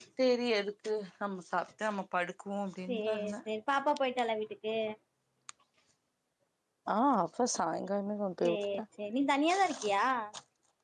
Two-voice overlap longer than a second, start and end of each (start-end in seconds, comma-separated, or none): none